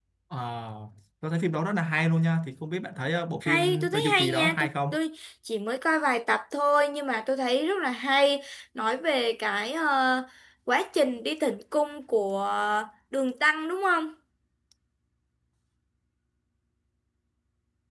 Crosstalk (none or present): present